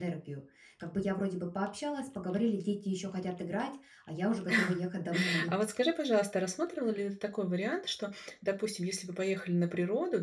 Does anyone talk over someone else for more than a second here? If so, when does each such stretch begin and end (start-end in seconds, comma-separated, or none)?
none